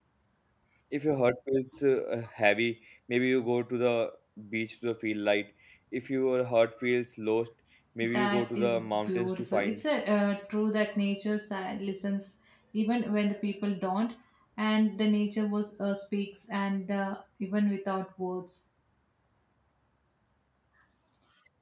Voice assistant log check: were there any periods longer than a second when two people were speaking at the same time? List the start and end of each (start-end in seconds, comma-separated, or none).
8.1-9.8